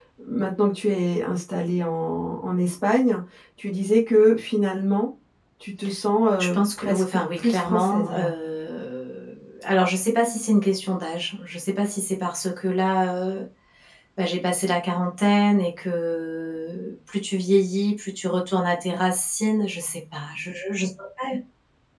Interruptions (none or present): present